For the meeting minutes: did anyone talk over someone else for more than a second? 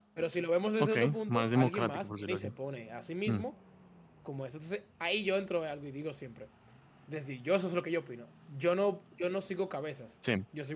Yes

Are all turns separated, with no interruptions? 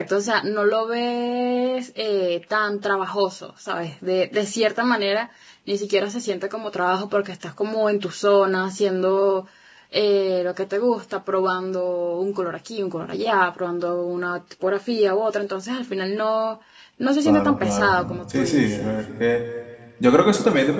No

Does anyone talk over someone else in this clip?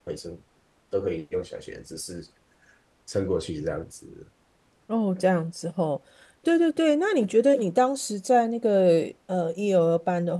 No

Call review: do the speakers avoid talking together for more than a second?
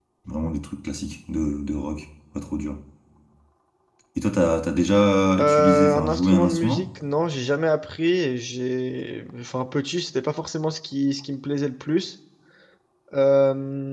No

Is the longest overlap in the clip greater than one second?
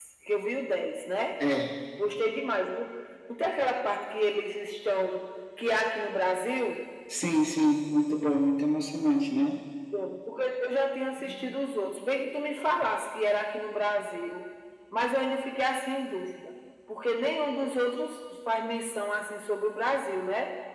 No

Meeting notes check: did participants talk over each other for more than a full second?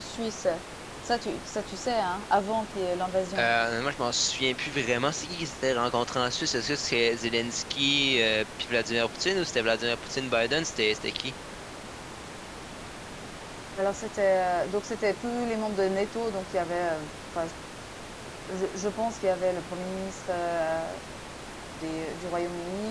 No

